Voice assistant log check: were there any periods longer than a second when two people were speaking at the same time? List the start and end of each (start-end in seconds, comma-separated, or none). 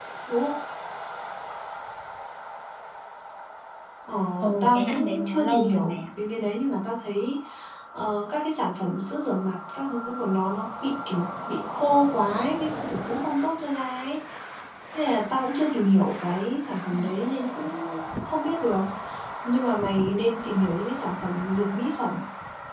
4.6-6.1